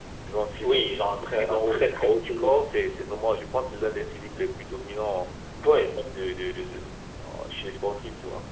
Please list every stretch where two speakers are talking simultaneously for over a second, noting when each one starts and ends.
0.6-2.5

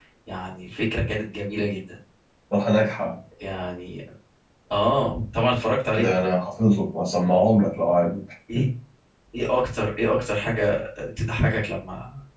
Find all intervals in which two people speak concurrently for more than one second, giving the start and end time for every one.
none

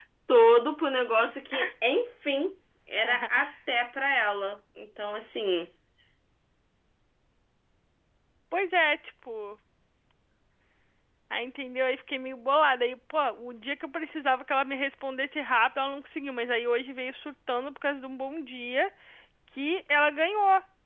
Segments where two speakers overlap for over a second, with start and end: none

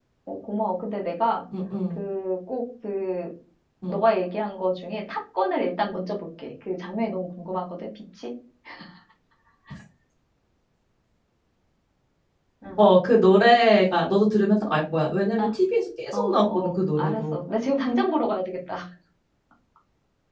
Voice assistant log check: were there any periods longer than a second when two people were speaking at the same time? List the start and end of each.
16.1-17.4

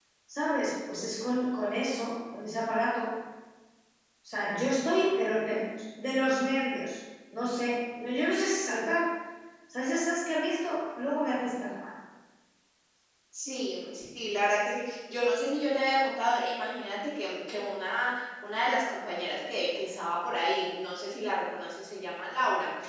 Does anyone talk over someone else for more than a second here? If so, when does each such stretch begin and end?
none

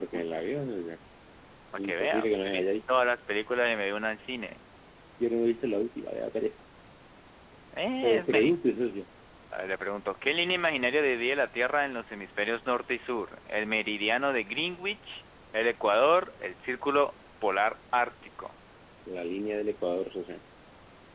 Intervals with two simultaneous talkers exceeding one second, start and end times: 1.8-3.0

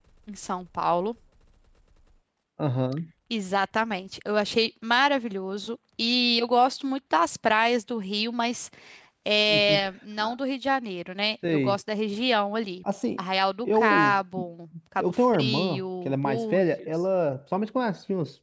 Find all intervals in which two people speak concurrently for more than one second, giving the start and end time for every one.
15.0-16.9

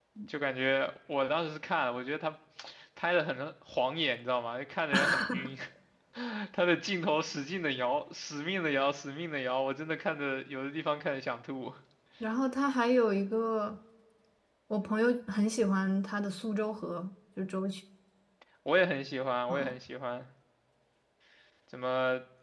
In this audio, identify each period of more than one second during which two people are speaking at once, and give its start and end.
none

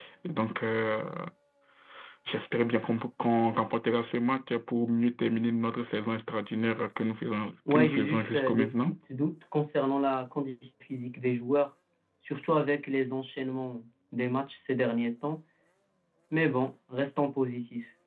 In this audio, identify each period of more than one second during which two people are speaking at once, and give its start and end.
7.7-9.0

